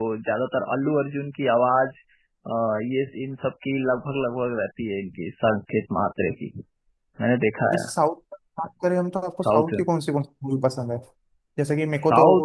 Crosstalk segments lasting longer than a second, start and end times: none

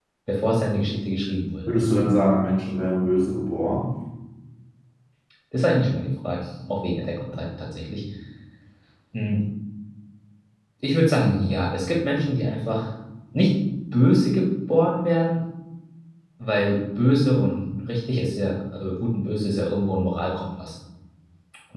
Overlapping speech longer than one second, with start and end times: none

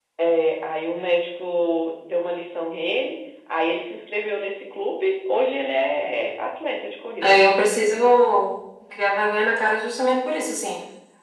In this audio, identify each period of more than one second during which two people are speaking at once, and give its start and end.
none

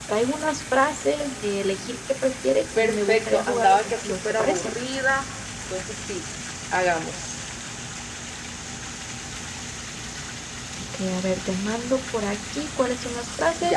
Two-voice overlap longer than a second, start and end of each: 2.8-4.7

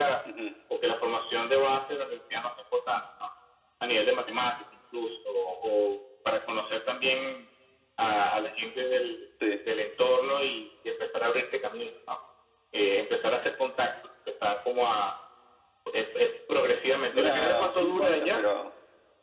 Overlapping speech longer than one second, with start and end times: 17.1-18.4

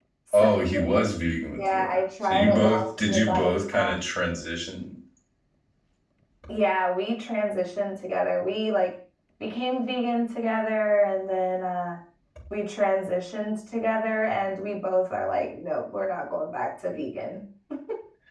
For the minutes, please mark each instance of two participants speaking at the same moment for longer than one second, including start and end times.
1.6-3.9

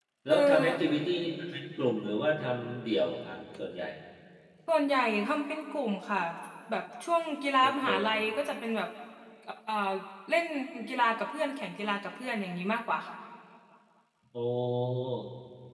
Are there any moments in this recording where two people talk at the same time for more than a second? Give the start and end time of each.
none

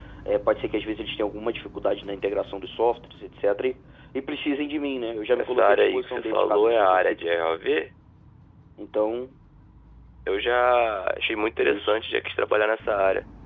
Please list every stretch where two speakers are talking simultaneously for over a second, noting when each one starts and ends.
5.3-7.2

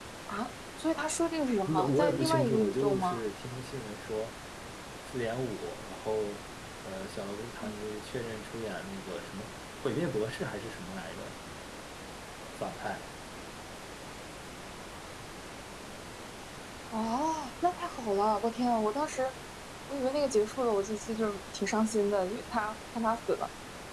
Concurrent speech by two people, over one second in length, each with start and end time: 1.7-3.2

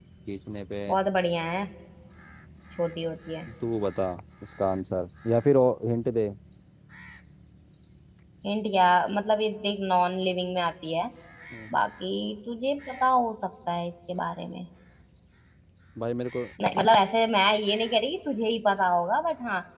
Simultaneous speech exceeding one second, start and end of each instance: none

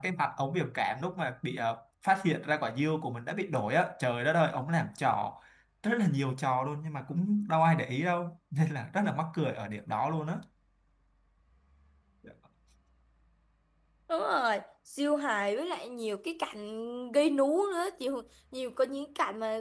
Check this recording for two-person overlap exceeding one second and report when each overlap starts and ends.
none

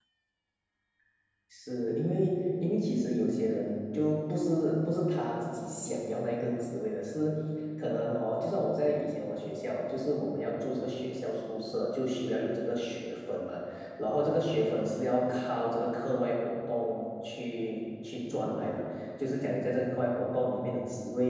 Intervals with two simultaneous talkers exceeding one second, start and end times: none

